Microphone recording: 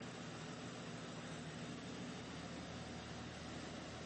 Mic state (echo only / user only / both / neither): neither